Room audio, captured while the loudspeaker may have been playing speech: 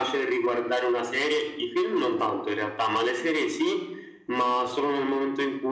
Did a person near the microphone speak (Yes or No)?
No